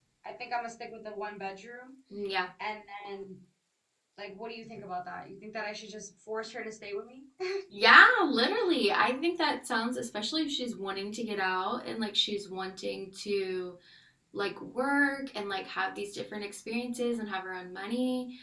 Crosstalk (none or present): none